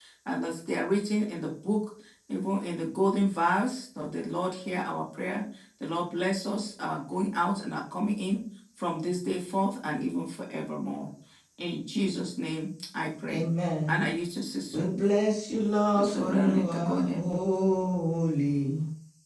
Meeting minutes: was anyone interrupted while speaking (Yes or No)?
Yes